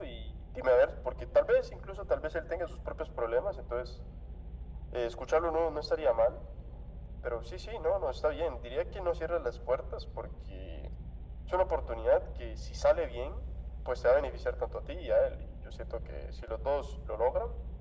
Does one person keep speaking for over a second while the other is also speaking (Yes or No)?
No